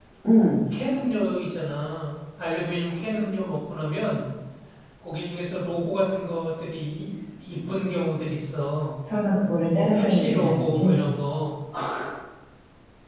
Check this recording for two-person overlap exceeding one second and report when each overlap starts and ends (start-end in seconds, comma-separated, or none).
9.8-11.0